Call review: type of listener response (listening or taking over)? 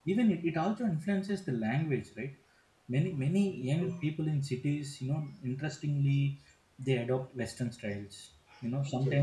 listening